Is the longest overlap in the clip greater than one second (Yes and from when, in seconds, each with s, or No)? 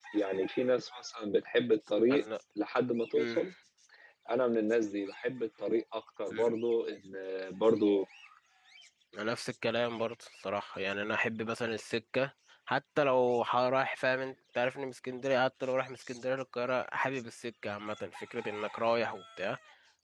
No